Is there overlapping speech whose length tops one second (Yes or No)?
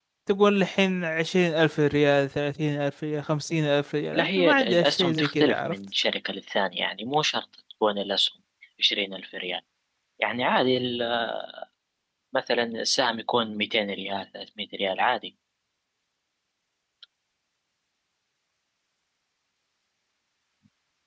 Yes